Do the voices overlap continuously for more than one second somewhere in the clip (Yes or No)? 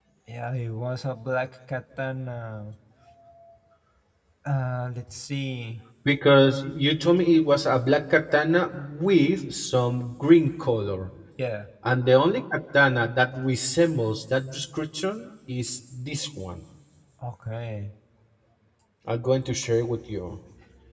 No